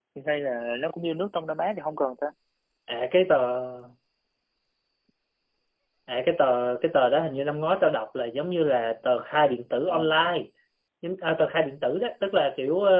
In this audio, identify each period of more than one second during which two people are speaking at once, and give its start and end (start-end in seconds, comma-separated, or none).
none